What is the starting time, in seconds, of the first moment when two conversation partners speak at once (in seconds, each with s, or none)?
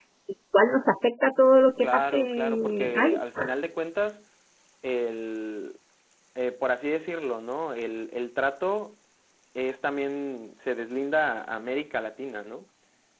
1.8 s